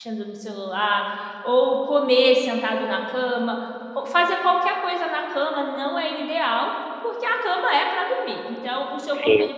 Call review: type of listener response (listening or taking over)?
listening